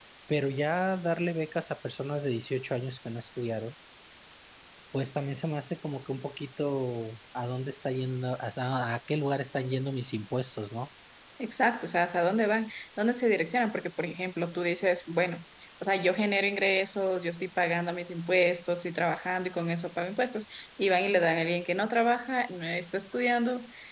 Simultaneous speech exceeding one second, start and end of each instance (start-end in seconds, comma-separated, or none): none